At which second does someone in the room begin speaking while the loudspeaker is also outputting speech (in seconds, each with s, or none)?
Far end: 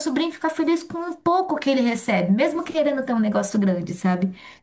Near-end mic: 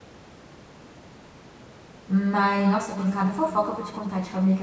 2.1 s